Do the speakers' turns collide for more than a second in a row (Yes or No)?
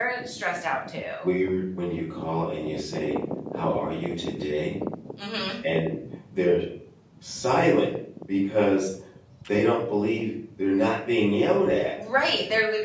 No